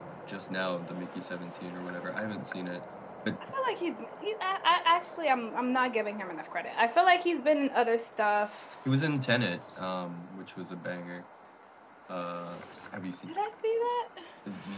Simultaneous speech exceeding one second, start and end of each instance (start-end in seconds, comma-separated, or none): none